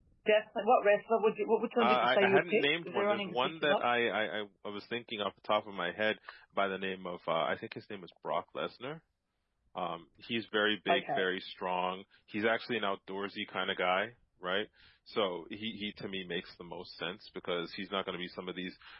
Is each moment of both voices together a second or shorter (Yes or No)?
No